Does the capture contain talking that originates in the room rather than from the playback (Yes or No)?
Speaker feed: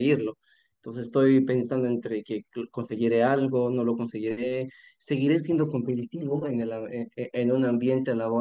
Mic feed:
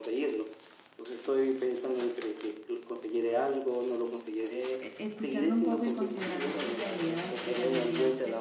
Yes